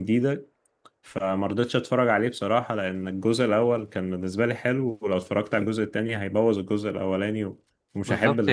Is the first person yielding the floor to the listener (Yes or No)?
Yes